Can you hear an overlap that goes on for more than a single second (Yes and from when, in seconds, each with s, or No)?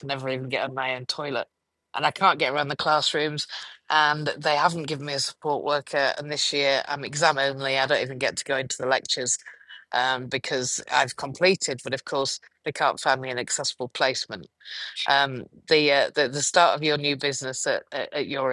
No